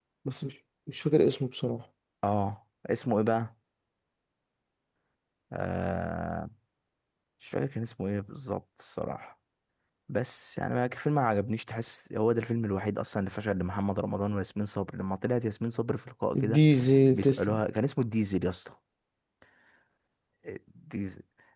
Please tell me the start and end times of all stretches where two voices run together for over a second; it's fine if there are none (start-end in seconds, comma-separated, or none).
none